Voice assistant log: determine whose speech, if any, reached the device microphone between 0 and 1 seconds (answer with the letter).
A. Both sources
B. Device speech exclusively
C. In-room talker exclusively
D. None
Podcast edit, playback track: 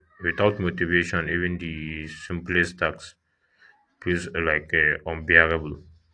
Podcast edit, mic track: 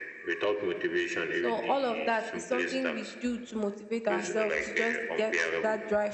B